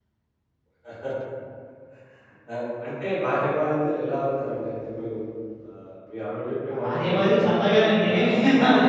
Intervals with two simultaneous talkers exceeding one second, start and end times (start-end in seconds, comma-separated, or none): 6.7-8.2